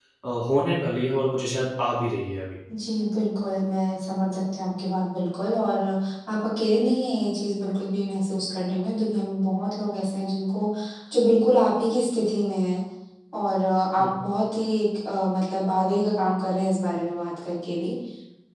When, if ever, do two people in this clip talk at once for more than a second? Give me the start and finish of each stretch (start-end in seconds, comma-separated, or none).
none